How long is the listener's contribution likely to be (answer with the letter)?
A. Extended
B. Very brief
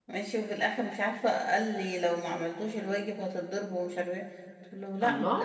B